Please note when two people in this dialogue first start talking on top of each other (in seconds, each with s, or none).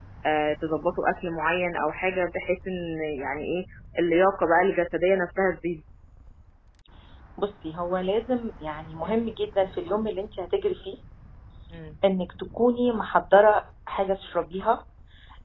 none